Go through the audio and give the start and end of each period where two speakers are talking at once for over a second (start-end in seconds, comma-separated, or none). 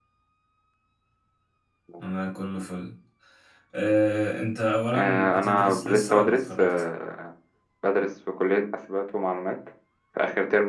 4.9-6.7